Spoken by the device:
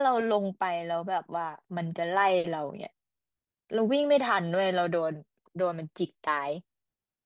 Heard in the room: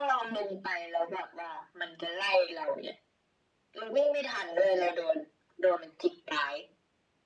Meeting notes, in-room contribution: none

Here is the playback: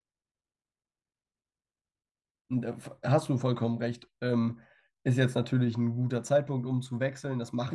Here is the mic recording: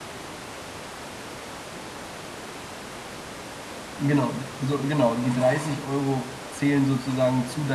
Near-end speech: present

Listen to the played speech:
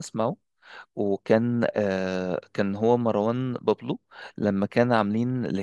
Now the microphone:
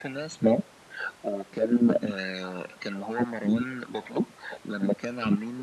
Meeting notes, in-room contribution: none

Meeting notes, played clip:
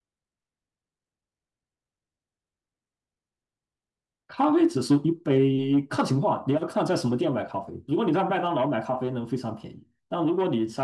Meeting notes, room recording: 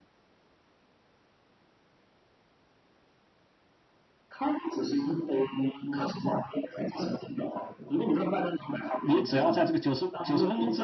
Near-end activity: present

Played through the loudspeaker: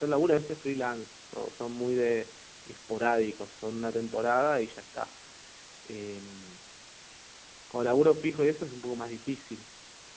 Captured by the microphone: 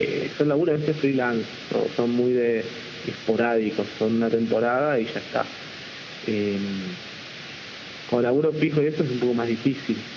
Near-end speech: none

